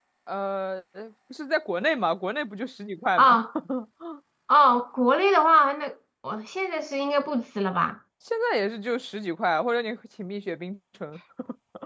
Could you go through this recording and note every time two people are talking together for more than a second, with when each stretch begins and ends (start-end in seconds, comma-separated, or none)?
none